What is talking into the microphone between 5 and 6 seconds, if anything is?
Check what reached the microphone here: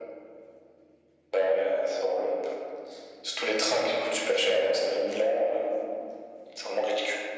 echo only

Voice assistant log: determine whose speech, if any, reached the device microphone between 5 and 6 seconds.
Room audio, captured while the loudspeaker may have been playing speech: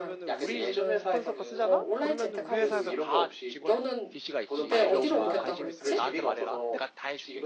both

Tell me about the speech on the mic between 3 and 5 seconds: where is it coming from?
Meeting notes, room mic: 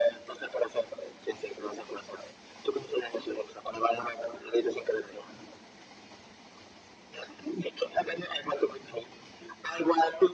echo only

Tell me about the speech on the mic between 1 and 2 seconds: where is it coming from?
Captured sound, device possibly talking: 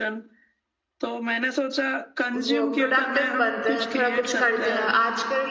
echo only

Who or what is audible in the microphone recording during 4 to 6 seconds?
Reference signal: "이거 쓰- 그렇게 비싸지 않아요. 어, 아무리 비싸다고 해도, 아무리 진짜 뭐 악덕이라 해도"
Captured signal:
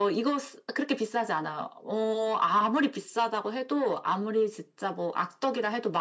echo only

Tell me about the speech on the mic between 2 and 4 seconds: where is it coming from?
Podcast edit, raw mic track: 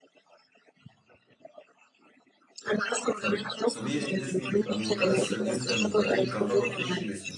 both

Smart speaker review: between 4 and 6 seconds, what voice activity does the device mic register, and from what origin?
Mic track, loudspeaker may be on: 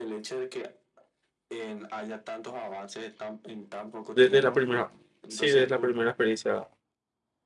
both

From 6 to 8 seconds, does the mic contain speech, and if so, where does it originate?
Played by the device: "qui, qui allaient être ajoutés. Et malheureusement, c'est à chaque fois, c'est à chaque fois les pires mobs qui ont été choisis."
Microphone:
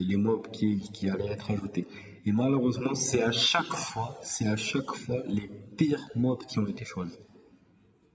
echo only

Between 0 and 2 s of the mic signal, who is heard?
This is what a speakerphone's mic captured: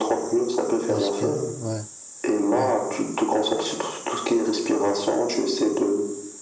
both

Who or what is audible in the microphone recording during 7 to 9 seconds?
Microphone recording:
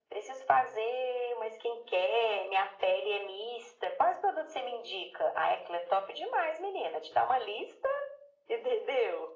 echo only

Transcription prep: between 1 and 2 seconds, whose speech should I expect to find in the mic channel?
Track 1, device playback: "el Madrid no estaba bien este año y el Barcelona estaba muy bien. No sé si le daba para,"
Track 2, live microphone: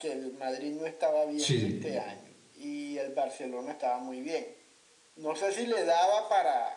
both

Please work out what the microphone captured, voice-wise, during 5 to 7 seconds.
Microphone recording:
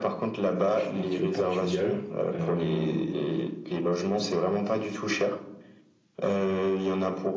echo only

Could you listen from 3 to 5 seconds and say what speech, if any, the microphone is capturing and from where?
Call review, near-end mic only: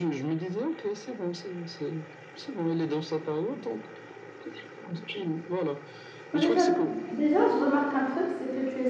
echo only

